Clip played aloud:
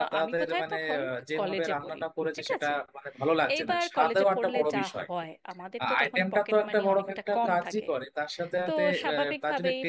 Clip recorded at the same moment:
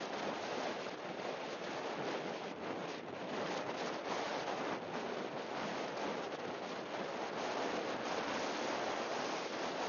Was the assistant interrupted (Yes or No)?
No